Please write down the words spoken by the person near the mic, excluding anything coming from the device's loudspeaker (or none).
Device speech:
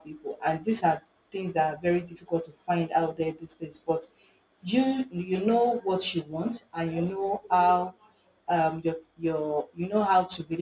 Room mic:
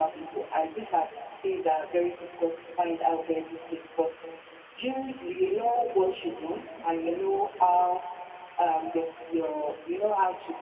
none